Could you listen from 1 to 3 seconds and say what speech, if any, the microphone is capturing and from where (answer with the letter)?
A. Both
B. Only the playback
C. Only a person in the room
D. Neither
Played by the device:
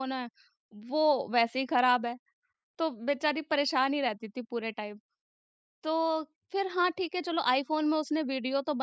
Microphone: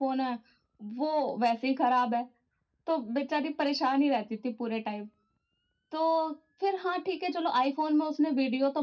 B